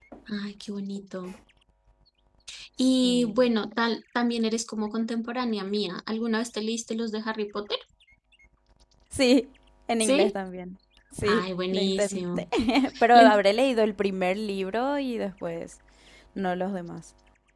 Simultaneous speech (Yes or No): Yes